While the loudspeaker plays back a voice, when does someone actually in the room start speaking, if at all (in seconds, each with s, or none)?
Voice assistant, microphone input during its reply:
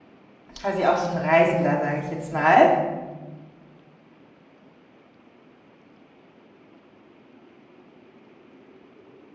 0.6 s